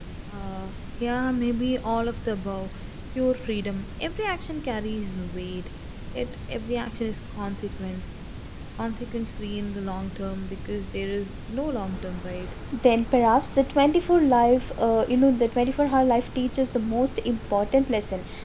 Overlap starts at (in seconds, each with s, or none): none